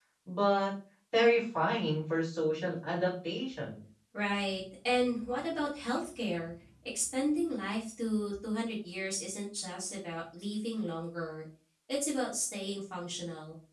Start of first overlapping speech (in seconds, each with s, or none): none